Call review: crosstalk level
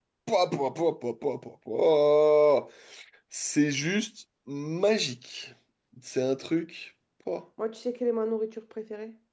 none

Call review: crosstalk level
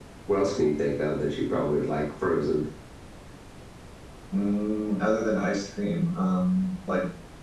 none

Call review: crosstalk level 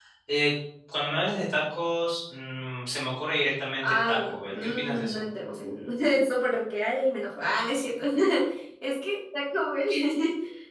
present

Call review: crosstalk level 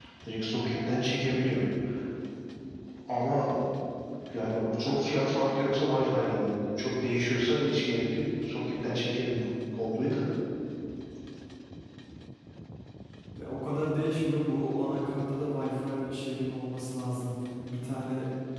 none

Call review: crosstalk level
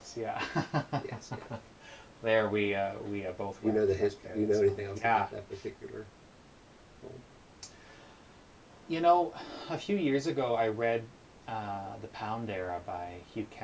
present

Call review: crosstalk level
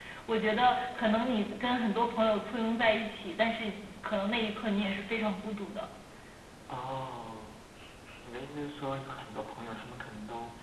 none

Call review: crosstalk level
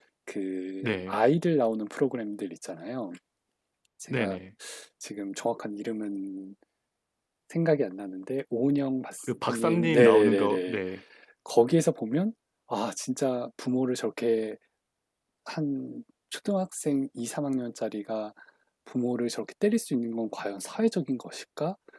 present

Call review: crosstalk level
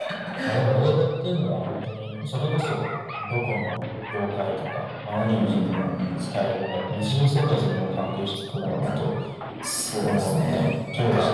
present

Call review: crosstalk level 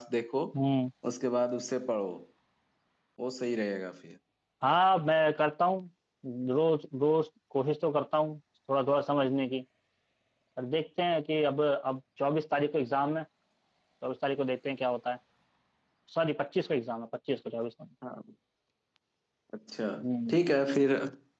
none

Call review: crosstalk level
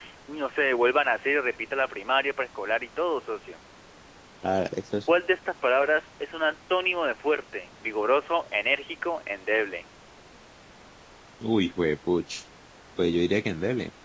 none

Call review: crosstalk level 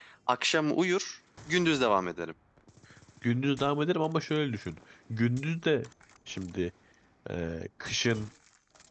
none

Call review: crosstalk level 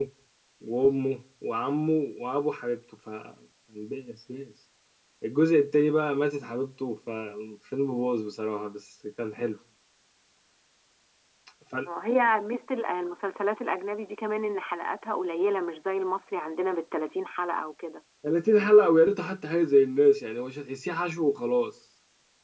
none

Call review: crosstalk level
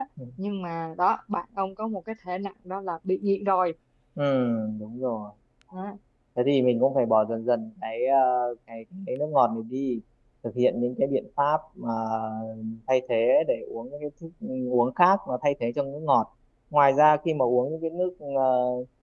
none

